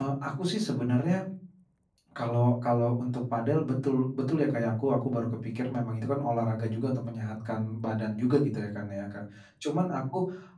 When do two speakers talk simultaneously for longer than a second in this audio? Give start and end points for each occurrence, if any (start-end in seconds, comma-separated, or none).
none